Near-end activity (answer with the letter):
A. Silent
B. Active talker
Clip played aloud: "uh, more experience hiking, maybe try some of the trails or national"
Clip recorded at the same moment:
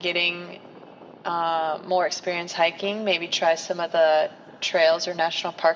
A